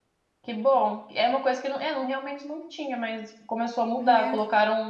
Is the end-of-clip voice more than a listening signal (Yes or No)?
No